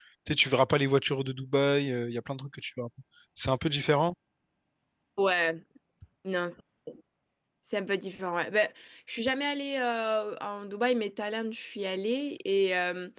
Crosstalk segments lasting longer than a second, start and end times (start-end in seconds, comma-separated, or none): none